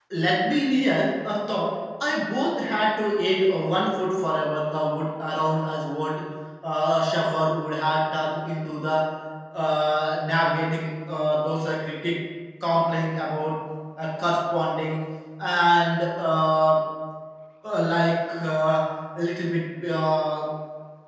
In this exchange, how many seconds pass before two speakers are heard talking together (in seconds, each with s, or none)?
none